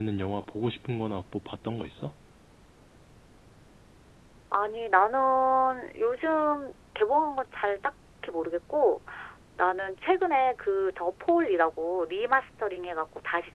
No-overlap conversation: Yes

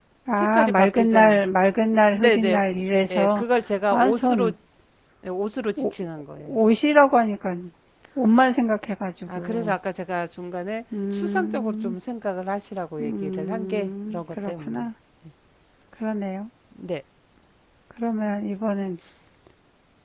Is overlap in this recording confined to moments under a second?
No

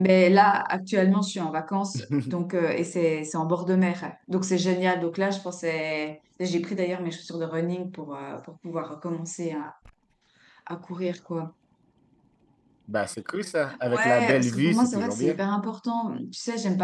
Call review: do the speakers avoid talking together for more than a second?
No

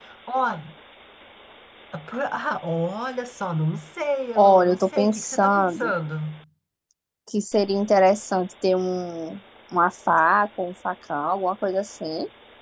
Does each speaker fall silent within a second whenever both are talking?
No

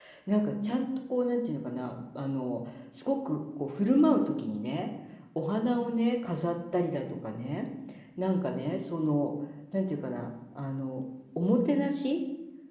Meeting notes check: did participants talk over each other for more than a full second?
No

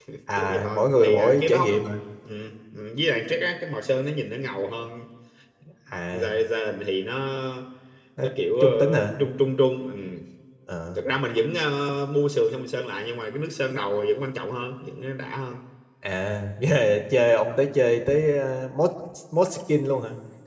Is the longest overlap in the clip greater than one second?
Yes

